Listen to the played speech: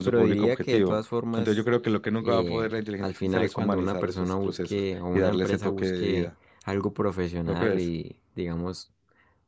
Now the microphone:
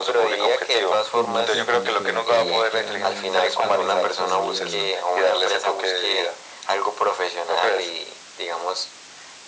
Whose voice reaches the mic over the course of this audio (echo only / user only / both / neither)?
both